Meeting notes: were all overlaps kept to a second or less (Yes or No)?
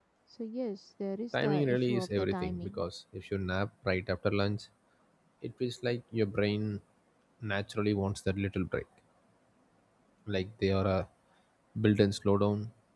No